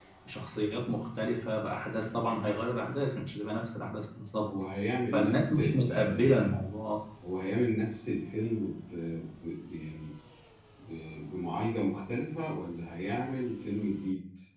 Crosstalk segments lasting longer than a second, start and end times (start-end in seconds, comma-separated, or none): 5.1-6.6